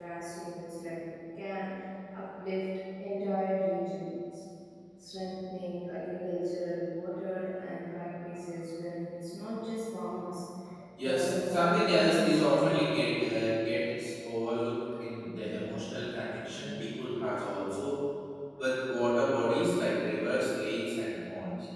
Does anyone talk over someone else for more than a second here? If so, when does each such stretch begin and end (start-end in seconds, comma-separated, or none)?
11.0-12.7